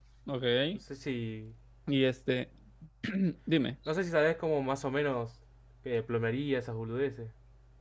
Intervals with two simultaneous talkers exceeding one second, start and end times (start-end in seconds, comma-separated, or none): none